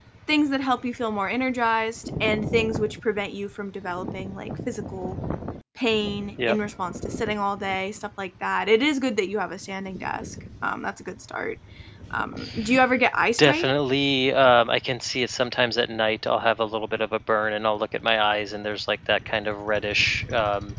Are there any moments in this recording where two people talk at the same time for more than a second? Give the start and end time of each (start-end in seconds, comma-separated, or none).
none